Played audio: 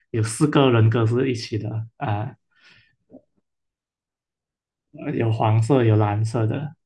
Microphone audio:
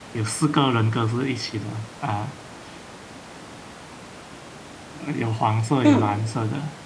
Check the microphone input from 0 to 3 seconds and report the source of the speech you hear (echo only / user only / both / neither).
echo only